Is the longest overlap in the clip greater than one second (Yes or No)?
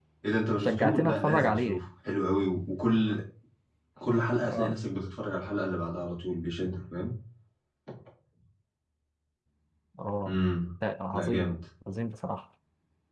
Yes